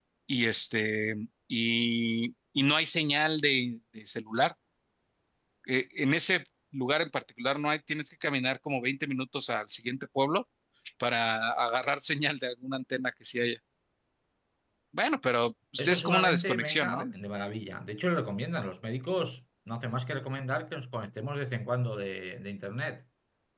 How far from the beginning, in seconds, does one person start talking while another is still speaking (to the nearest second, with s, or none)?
16 s